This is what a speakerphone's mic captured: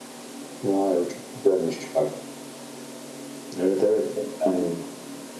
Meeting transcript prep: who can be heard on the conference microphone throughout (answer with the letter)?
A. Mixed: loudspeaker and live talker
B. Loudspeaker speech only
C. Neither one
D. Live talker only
B